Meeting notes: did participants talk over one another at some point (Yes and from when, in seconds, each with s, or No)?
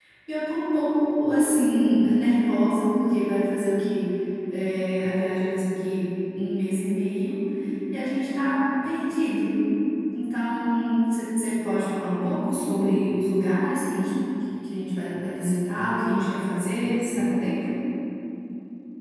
No